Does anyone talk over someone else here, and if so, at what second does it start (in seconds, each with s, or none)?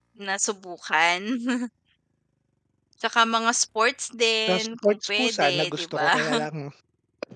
4.5 s